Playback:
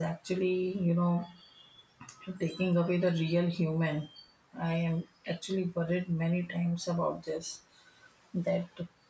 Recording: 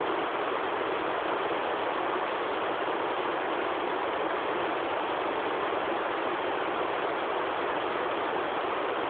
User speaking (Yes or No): No